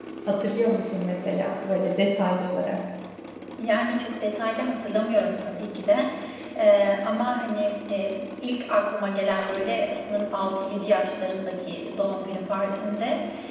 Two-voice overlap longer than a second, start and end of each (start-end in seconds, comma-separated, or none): none